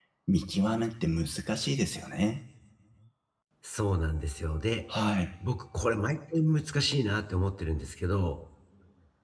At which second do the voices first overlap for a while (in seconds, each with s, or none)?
none